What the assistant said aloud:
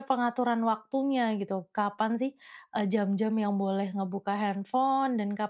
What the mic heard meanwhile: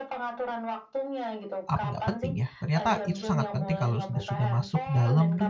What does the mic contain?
both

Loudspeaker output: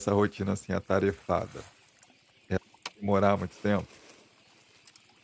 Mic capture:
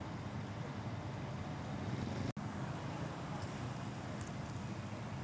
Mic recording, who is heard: neither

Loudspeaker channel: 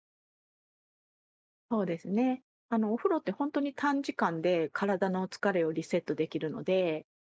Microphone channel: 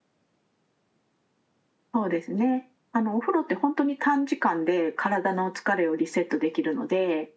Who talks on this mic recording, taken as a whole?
echo only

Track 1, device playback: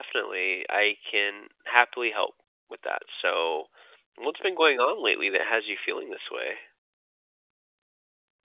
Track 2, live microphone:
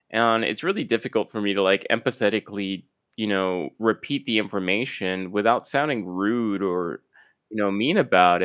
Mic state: user only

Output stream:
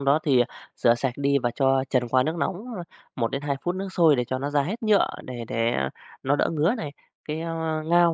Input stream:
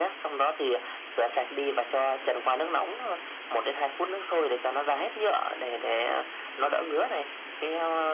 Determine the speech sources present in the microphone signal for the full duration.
echo only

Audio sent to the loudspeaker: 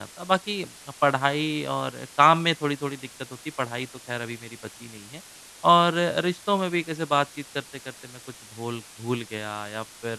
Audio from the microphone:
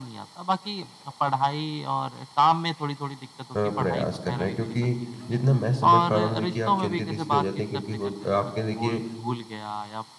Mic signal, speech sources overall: both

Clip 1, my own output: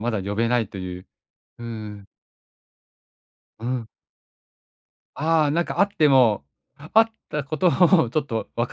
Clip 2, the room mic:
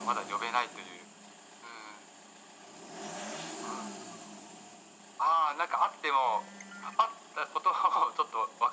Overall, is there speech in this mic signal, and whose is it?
echo only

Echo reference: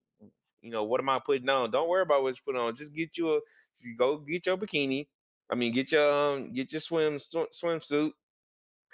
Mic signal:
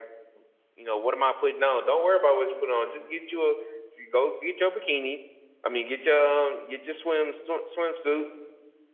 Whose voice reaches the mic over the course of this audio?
echo only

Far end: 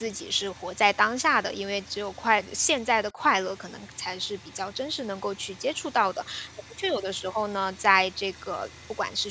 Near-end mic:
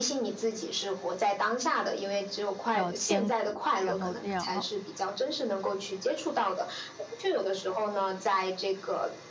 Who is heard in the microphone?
both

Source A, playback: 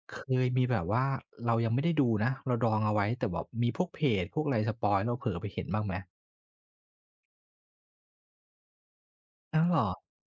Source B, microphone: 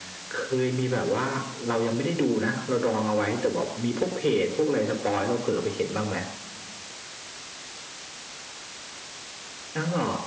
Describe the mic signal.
echo only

